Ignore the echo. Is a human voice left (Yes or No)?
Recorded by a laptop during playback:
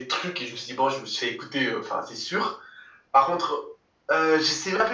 No